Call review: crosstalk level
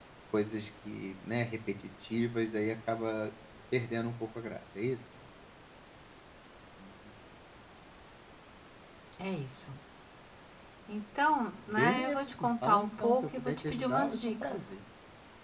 present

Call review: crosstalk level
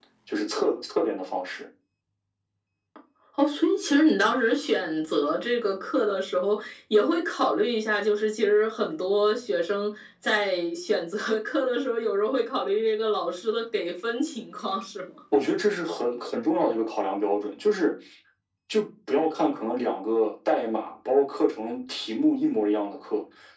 none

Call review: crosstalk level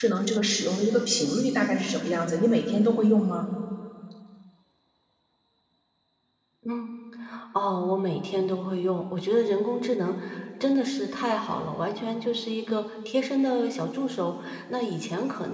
none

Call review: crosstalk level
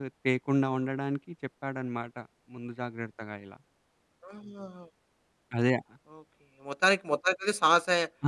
none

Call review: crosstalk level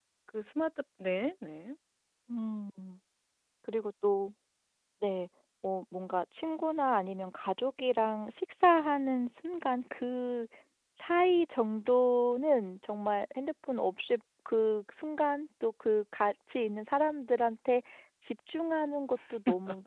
none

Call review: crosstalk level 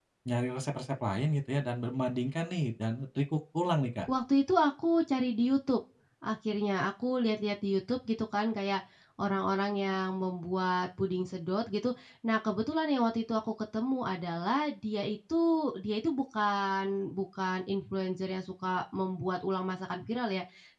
none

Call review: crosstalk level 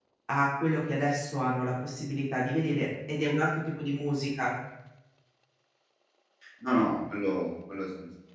none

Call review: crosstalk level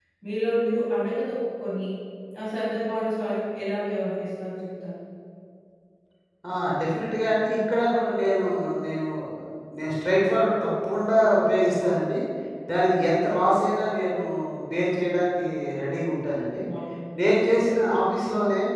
none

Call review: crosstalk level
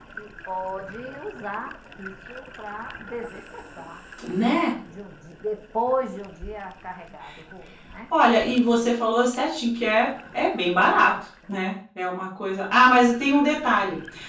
none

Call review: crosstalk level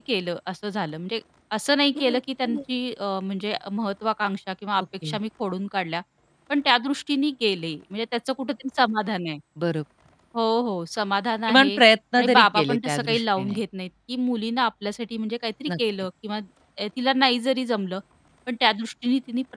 present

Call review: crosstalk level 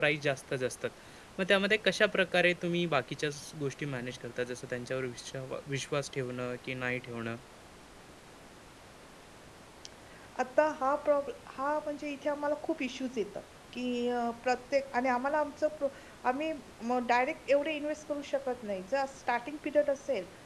none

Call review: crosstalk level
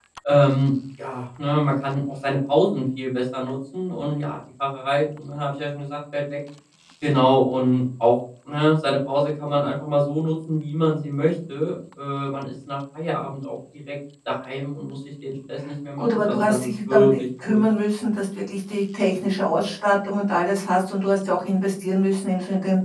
present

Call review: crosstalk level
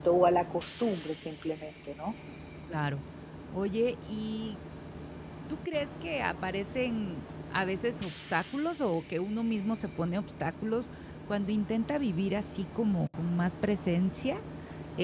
none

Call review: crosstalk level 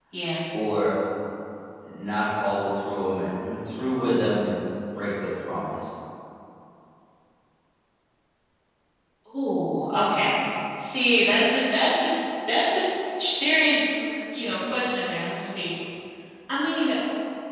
none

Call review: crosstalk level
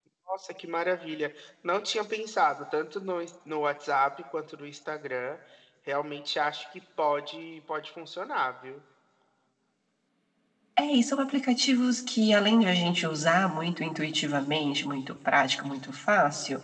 none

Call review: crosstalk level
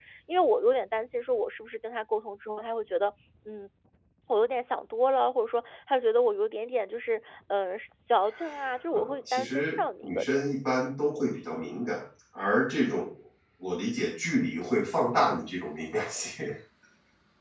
present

